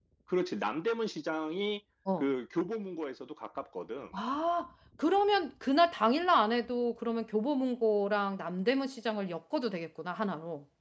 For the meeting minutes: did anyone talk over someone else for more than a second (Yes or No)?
No